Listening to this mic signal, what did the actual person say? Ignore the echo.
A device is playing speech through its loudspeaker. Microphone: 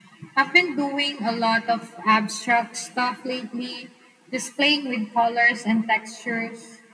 none

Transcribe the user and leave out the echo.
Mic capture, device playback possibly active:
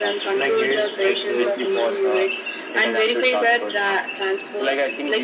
so like here's like uh,

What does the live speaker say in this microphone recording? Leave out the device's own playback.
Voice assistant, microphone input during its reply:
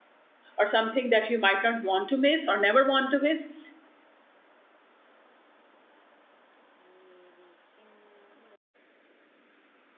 or something that you might not want to miss or never want to miss.

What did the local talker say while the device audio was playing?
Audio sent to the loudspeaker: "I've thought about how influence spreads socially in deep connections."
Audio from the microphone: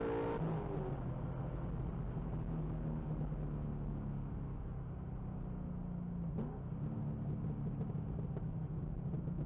none

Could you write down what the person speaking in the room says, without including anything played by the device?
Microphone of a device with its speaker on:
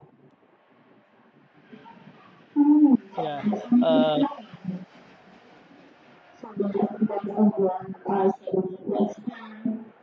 yeah. Uh,

